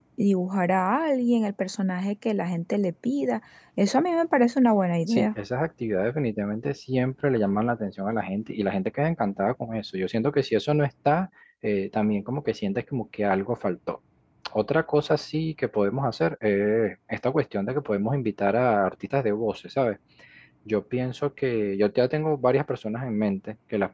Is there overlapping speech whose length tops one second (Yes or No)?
No